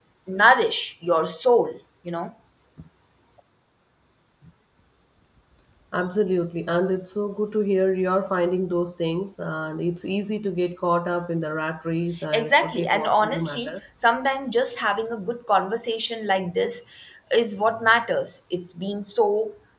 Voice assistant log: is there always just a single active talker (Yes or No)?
No